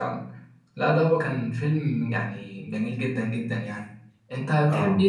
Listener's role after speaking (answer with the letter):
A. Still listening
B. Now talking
A